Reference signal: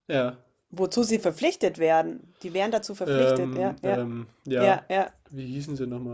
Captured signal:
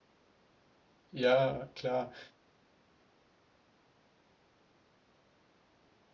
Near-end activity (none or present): present